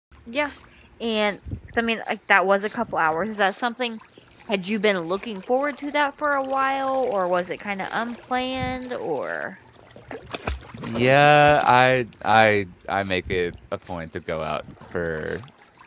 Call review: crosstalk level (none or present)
none